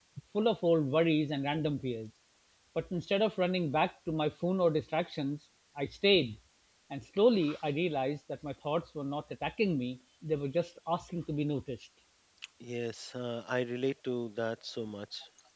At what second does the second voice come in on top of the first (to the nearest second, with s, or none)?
none